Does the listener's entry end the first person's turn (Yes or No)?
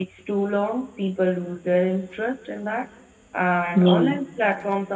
No